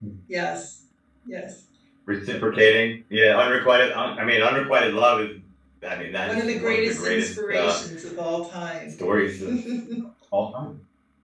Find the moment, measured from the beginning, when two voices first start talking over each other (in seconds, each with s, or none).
6.2 s